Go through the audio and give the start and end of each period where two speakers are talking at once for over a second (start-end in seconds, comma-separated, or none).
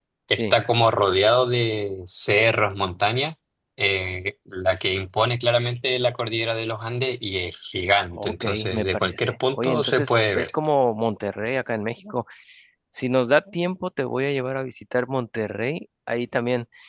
8.2-10.5